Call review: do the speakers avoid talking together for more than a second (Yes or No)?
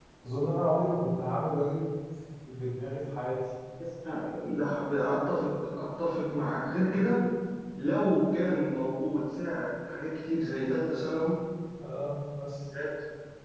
Yes